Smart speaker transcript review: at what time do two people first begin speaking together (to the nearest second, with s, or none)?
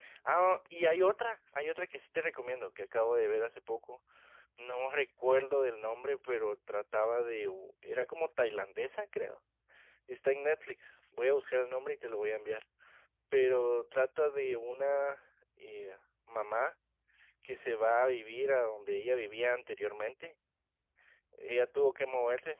none